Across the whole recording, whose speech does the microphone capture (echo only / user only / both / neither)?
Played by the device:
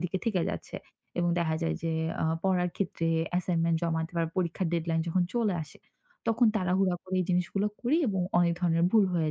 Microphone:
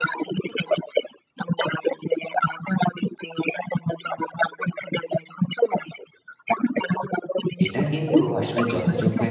both